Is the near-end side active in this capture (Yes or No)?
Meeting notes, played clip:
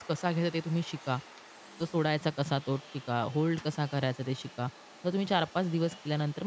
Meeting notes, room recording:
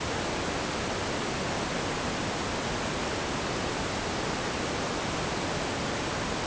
No